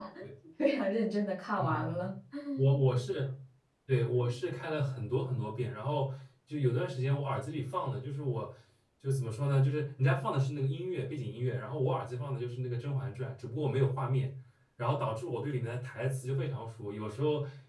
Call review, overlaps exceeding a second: none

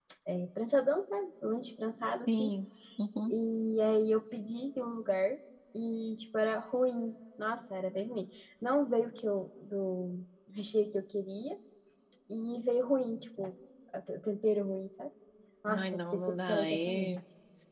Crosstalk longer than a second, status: present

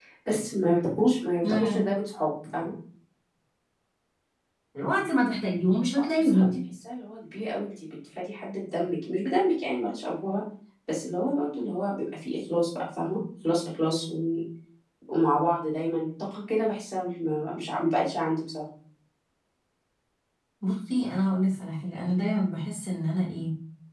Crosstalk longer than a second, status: none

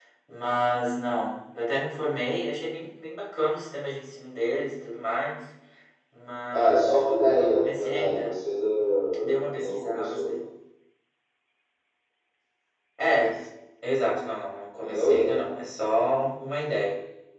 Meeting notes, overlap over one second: present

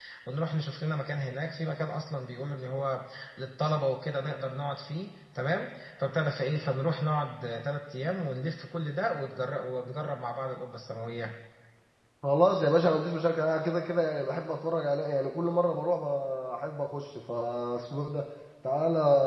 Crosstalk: none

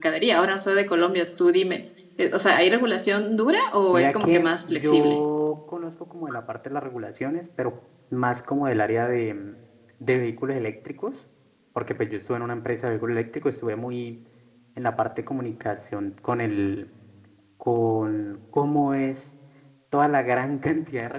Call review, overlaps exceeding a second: present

